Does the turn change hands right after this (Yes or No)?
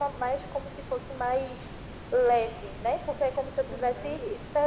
No